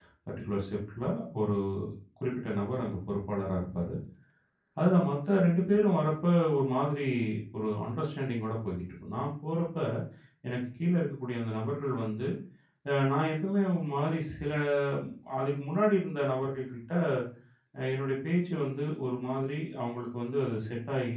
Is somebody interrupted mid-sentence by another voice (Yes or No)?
No